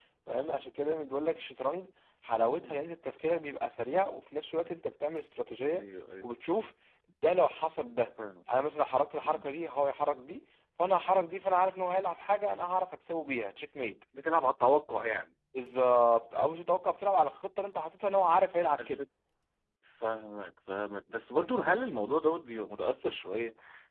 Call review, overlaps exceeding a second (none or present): none